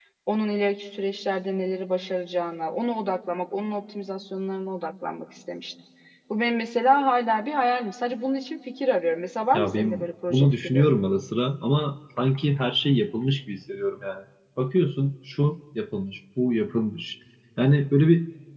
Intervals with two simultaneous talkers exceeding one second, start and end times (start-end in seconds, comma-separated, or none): 9.5-10.9